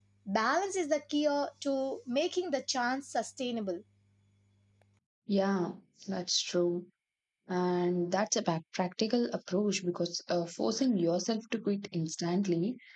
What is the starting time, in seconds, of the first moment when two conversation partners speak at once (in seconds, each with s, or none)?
none